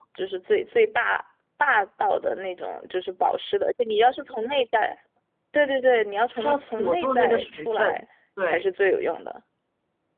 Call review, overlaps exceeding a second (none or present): present